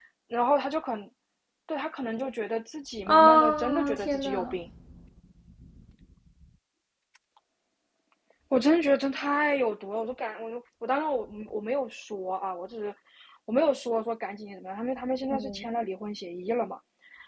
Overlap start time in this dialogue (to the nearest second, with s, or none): 3 s